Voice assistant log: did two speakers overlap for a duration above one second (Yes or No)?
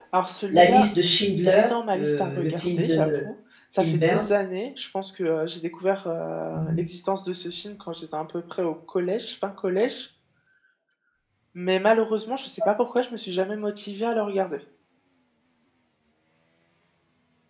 Yes